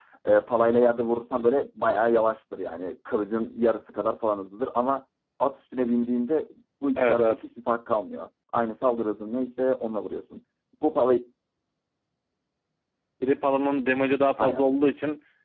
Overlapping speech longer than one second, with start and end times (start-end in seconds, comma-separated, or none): none